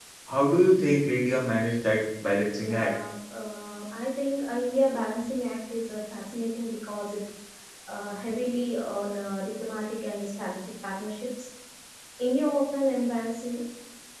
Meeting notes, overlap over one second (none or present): none